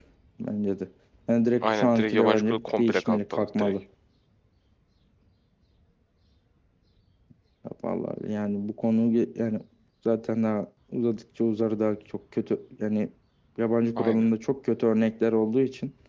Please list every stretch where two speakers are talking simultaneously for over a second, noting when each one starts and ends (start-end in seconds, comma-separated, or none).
1.6-3.7